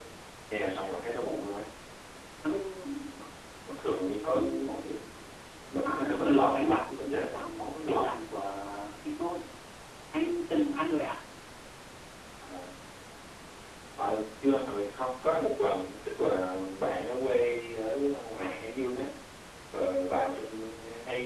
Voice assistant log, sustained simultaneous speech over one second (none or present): present